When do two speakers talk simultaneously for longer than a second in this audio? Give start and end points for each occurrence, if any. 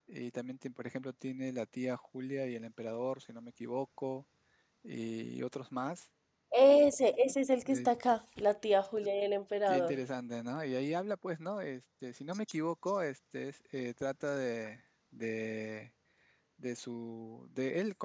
none

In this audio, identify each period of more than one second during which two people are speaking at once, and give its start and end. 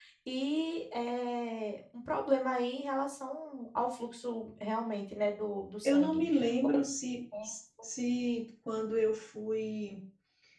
none

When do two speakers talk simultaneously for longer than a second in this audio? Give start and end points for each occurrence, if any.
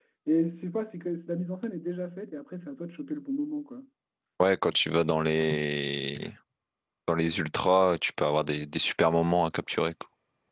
none

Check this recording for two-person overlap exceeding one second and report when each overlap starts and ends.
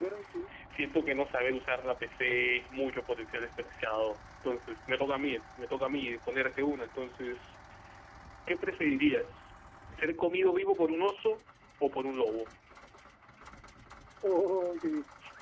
none

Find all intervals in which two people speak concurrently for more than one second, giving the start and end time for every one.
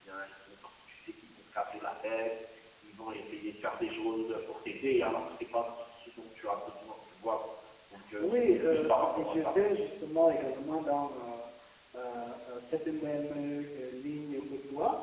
8.2-9.7

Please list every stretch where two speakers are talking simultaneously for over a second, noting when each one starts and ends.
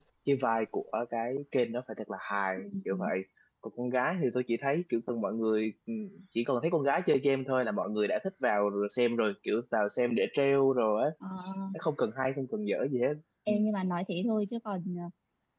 none

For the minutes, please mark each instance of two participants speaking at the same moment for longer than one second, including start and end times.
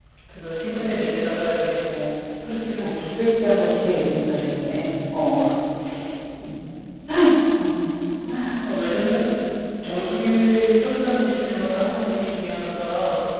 none

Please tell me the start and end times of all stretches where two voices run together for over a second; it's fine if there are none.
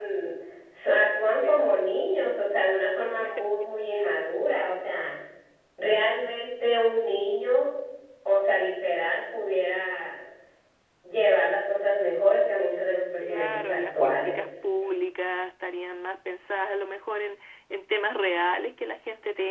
13.2-14.6

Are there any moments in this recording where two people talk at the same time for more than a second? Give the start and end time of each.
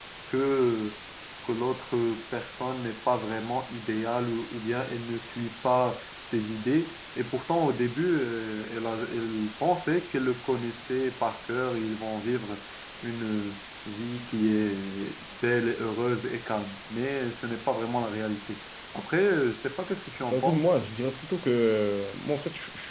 none

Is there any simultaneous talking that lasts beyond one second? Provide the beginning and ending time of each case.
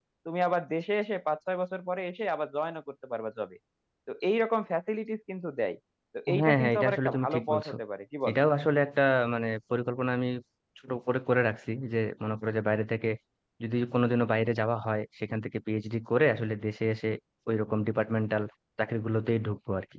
6.4-7.7

